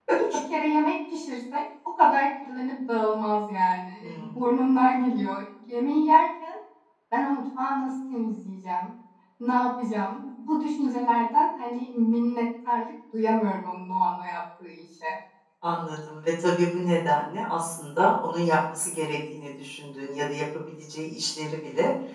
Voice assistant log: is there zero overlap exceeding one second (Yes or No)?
Yes